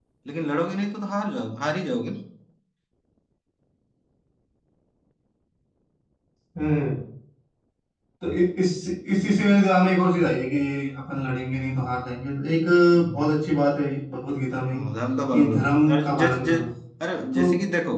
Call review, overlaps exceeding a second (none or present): present